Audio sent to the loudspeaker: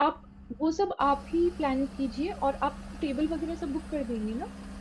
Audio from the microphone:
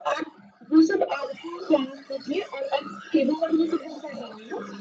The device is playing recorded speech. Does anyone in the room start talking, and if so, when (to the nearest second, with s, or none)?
none